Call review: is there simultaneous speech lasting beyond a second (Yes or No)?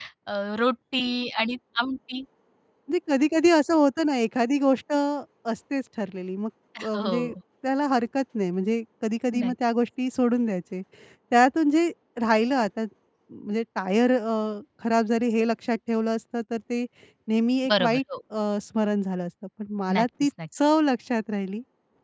No